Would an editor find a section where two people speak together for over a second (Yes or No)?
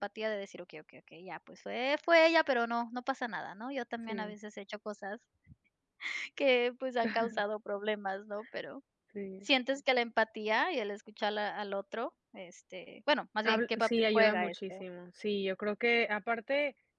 Yes